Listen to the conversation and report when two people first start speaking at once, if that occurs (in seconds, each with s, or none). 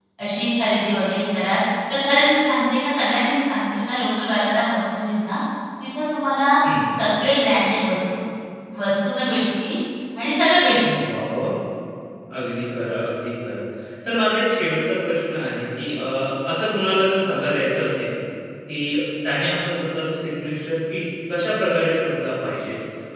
none